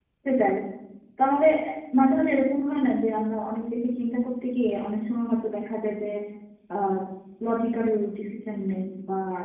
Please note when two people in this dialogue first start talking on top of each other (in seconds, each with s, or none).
none